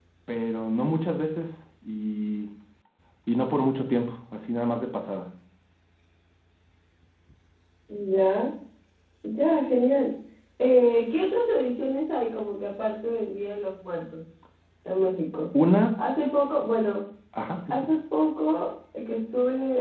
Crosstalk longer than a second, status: none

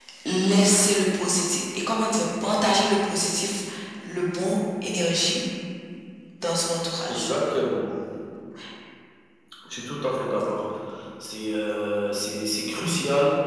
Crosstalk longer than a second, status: none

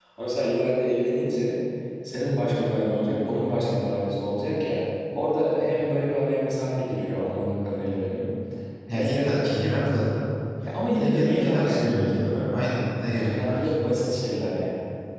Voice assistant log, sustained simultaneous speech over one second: present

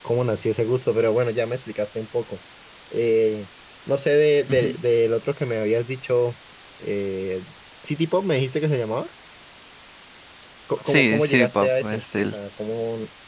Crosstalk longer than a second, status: present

